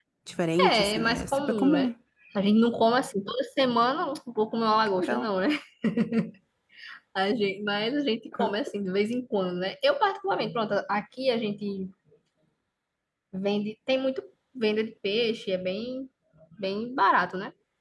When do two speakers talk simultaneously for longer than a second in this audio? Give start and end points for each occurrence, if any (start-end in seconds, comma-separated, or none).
0.6-1.9